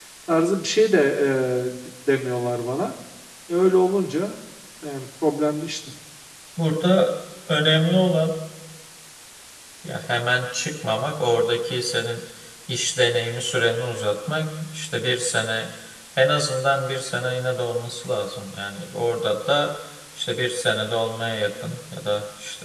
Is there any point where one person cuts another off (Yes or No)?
No